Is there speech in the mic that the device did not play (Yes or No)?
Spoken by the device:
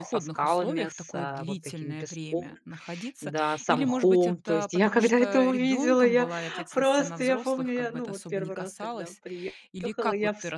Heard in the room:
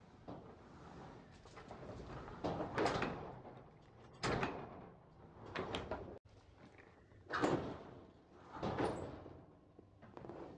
No